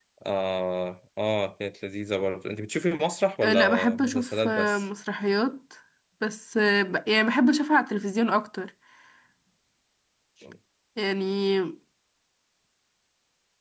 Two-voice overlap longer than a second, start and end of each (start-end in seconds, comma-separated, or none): 3.4-4.8